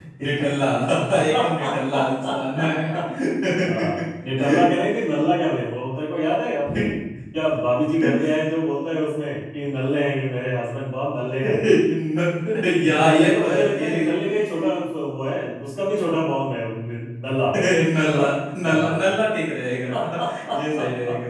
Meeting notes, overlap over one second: present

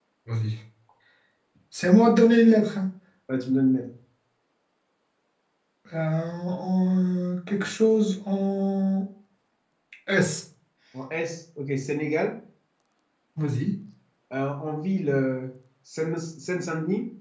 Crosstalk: none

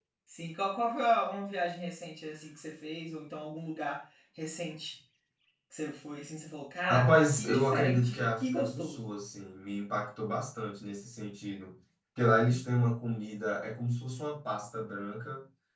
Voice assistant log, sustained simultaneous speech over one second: present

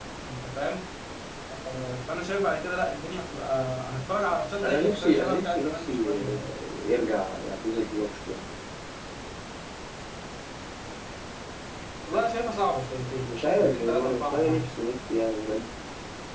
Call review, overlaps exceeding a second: present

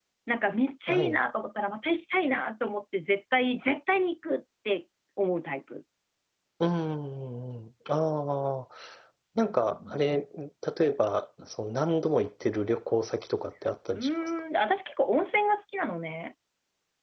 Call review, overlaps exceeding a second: none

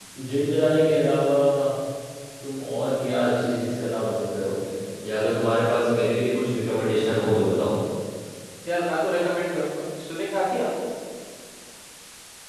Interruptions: none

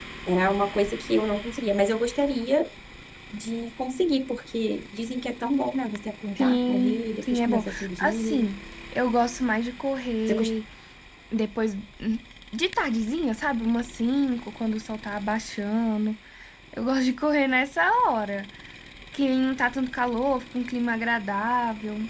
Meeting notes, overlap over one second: present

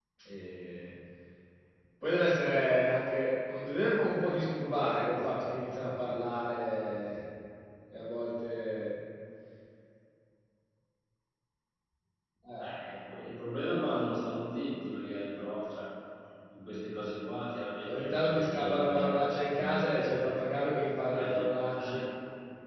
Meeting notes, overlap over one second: present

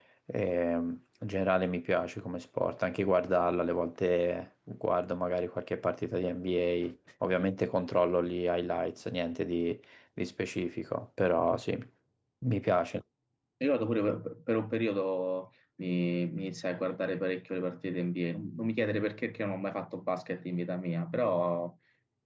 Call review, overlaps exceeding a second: none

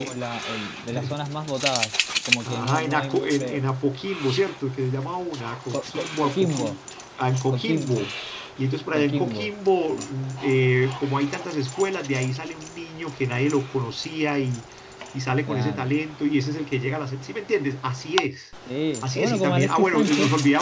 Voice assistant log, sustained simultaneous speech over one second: present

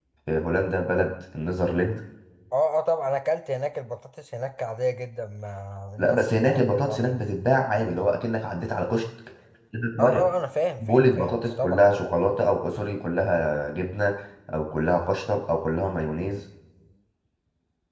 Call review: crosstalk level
present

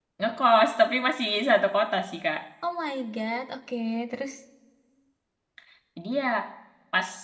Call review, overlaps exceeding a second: none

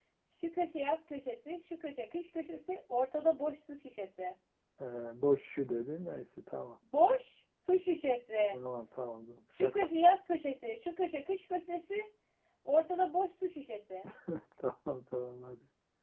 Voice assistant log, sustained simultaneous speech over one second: none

